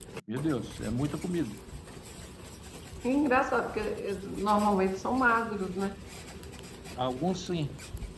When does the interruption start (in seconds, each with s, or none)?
none